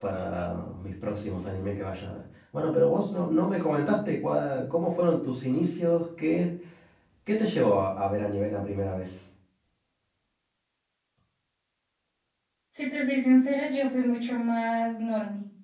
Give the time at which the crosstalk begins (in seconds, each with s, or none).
none